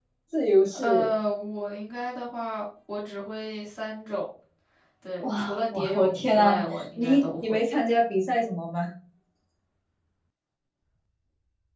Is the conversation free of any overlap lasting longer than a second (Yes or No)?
No